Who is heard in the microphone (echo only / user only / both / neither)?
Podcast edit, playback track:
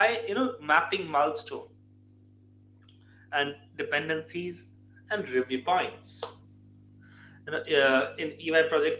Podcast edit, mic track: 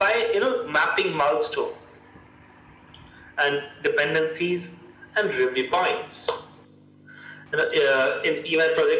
echo only